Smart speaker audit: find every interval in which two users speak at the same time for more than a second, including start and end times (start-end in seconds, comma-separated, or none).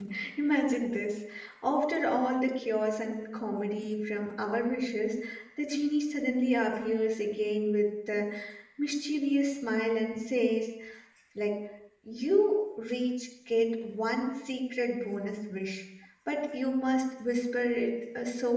none